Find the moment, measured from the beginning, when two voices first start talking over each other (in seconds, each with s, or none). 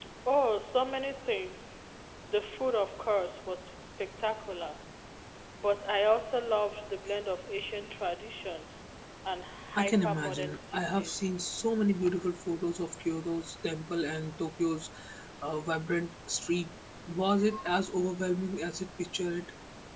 9.8 s